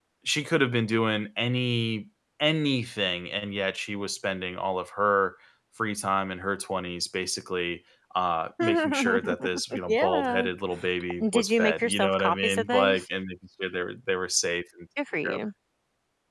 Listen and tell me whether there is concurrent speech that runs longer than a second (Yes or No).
Yes